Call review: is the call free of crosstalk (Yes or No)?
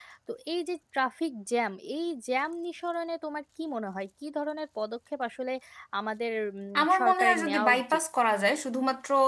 No